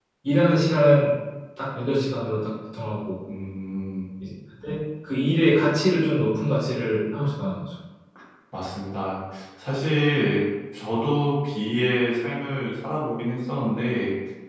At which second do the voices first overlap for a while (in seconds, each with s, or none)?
none